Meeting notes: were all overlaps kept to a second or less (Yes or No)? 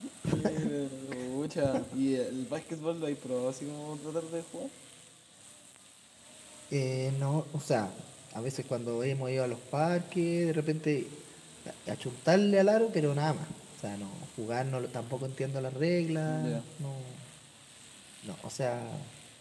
Yes